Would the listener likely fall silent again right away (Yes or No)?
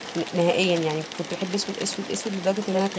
No